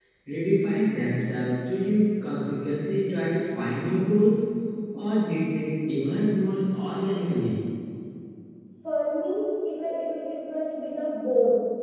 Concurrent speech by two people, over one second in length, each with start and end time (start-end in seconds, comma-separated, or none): none